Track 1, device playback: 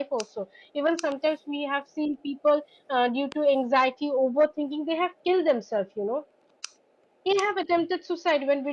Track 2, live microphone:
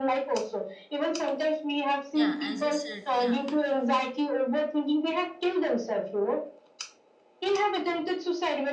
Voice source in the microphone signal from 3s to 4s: both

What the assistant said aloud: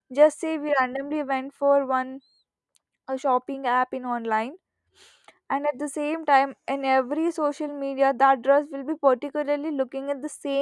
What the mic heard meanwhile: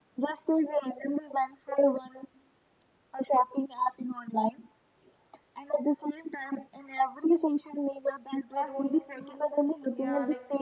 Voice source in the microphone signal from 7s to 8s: echo only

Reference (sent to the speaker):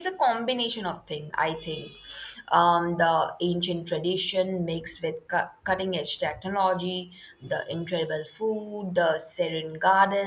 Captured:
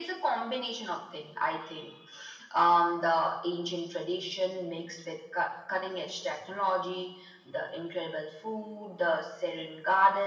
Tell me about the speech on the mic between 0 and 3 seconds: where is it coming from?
echo only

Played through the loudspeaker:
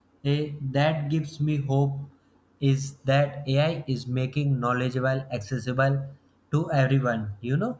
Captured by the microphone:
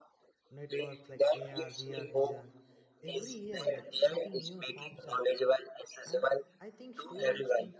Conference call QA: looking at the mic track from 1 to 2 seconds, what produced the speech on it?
both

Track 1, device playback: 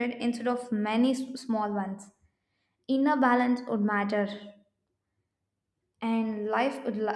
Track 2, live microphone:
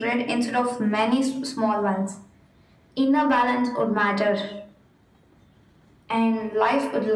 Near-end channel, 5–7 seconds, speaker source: echo only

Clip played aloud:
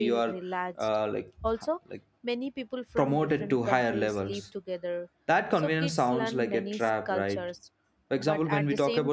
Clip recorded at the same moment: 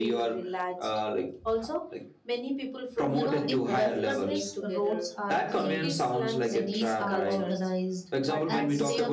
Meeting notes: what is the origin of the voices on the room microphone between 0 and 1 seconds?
echo only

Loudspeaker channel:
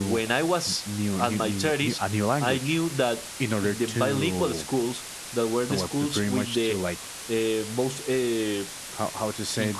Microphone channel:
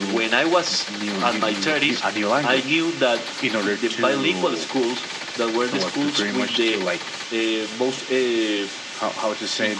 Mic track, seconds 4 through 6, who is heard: echo only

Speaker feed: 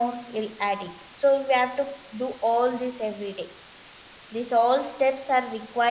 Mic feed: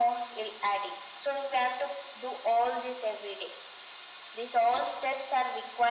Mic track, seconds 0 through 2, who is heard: echo only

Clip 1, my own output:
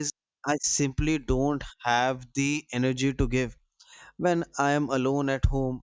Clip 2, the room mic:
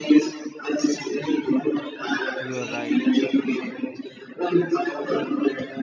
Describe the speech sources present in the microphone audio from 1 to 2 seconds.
echo only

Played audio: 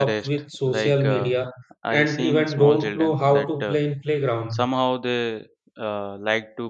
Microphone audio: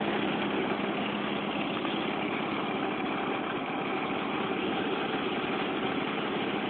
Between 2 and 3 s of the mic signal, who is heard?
neither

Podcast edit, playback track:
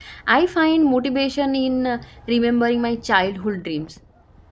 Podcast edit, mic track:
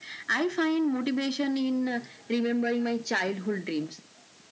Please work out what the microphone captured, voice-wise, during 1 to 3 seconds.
echo only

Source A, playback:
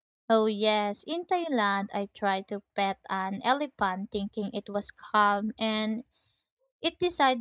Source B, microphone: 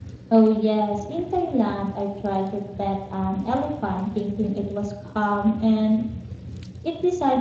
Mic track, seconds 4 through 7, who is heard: echo only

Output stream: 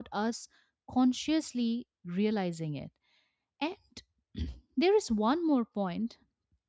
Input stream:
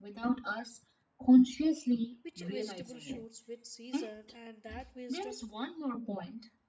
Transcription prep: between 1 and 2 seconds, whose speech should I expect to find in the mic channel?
echo only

